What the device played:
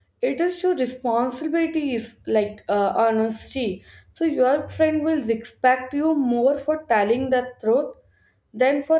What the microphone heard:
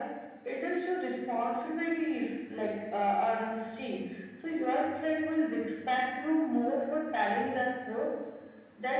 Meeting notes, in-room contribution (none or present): none